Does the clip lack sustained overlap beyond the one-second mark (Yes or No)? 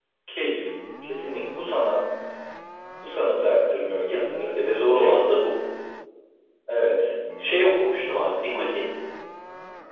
Yes